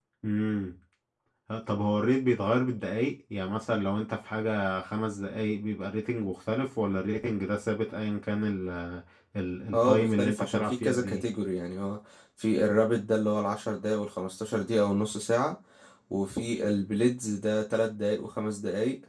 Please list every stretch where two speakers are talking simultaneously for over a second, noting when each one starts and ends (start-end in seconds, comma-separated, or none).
9.7-11.2